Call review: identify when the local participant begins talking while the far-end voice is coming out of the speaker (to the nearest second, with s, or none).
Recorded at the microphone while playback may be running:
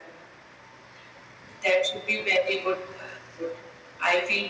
none